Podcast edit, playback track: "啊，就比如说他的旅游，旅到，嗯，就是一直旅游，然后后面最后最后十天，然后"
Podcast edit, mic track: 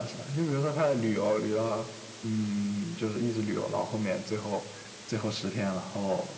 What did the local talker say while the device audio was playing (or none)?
none